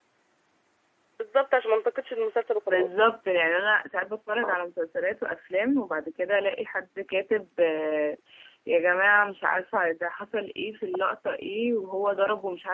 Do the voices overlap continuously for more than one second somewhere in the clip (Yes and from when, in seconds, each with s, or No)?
No